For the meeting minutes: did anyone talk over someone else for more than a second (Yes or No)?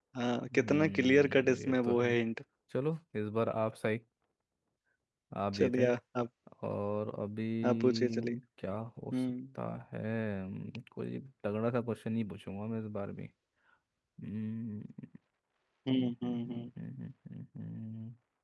Yes